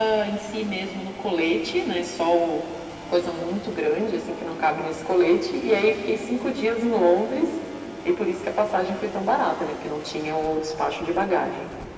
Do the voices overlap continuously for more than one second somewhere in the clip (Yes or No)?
No